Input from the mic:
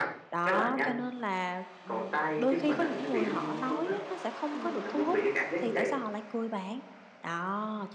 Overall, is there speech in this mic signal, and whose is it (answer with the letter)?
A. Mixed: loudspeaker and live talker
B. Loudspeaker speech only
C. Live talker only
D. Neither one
A